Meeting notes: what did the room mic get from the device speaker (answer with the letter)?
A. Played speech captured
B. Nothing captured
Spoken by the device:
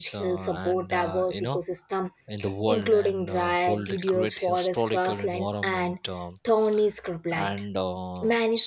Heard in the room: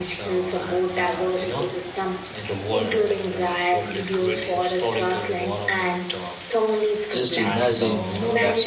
A